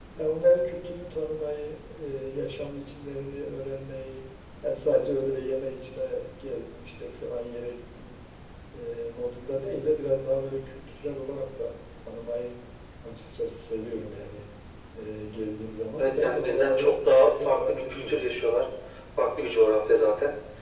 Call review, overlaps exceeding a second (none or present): present